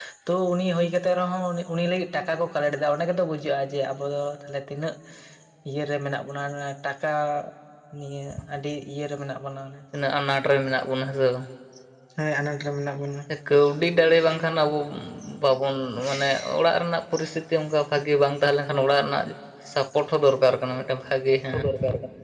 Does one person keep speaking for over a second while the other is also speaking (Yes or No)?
No